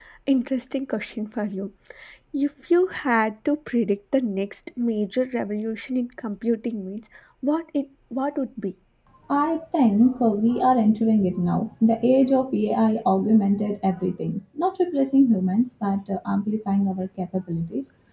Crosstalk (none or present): none